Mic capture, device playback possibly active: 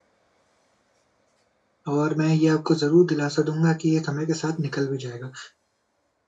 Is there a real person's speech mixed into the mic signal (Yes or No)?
Yes